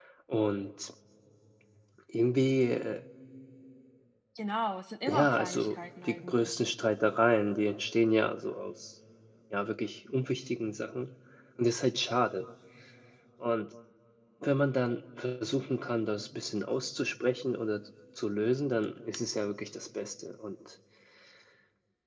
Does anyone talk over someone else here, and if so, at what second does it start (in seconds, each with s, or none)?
5.1 s